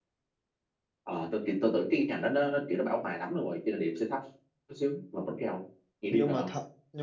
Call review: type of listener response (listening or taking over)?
taking over